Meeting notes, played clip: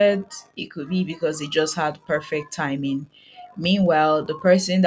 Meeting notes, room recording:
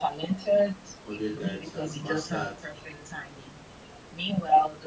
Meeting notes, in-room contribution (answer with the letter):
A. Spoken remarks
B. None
A